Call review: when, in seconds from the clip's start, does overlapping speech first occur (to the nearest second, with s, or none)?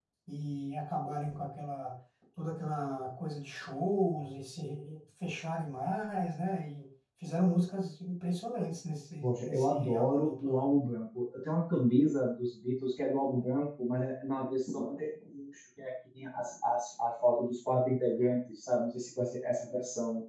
9 s